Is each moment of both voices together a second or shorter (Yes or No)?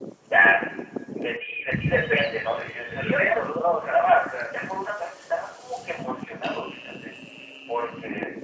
No